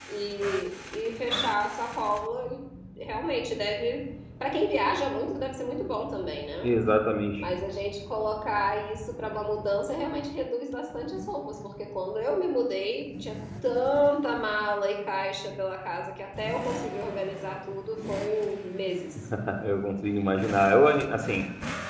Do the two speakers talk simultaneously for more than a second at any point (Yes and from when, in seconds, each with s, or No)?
No